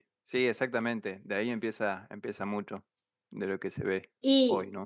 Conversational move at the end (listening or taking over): taking over